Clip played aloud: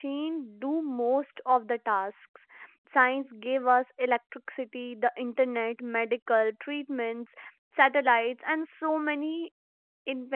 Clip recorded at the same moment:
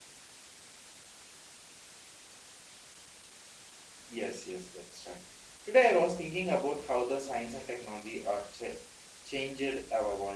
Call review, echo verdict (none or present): none